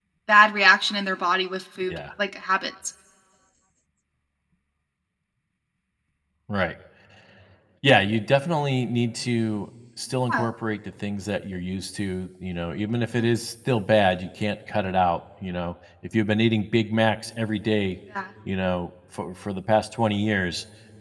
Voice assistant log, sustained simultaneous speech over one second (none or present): none